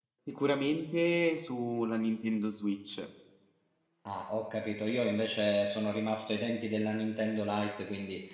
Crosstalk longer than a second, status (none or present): none